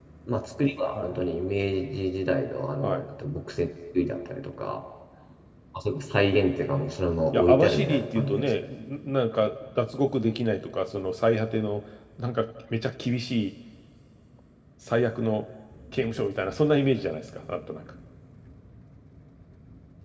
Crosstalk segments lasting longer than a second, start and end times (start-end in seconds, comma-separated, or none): 7.3-8.6